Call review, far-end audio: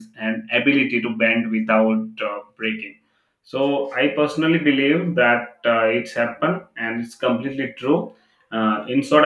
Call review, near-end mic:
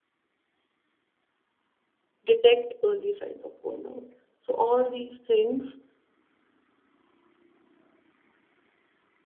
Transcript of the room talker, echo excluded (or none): detect early signs of burnout so all these things